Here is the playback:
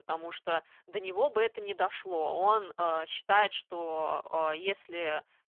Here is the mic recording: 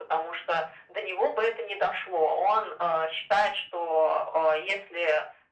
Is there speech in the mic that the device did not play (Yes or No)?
No